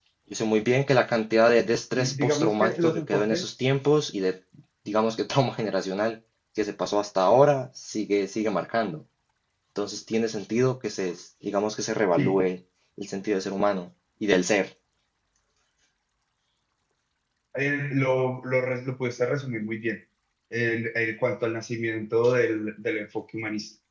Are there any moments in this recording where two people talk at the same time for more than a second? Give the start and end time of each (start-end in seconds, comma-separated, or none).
2.0-3.5